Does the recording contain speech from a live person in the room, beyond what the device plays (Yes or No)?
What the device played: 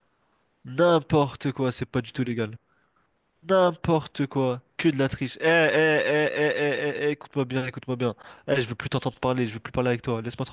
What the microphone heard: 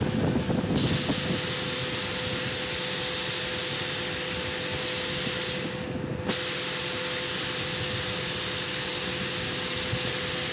No